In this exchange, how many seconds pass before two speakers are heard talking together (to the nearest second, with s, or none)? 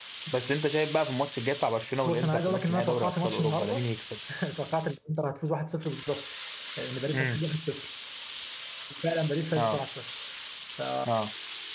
2 s